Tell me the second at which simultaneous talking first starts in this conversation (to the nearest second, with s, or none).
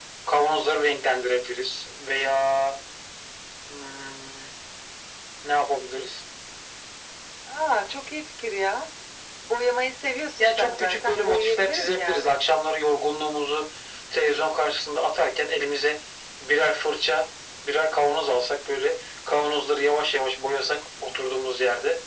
10 s